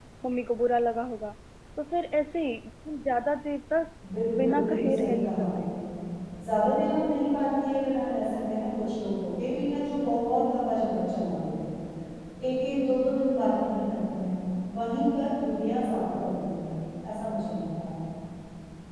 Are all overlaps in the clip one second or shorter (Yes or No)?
No